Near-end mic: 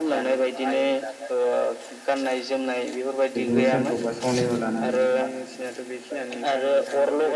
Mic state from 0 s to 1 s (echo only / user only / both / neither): echo only